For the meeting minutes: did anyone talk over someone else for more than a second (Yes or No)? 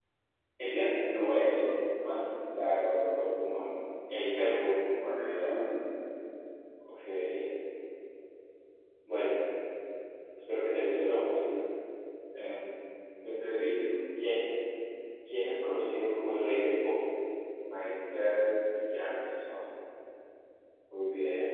No